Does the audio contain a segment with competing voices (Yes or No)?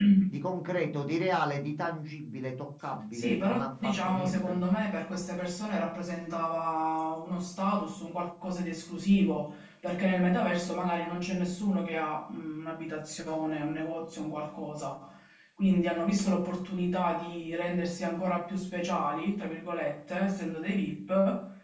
Yes